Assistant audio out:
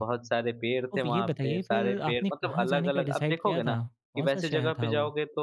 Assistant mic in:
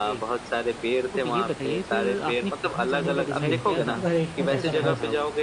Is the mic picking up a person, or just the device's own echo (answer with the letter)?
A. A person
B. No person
A